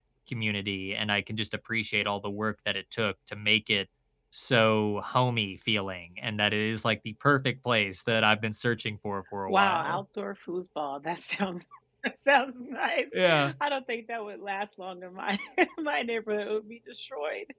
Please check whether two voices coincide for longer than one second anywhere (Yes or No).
No